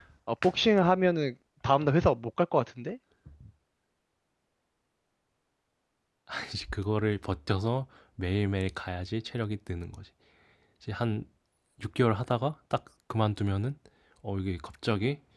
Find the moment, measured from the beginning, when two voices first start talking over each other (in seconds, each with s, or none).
none